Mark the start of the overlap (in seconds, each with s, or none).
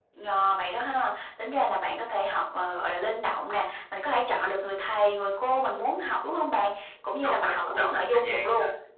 7.2 s